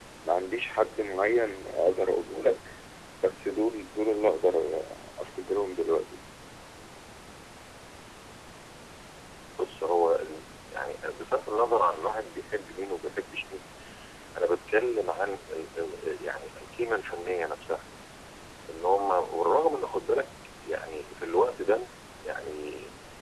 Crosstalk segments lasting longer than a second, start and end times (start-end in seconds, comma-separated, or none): none